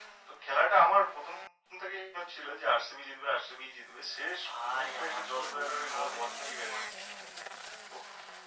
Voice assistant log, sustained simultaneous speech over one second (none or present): present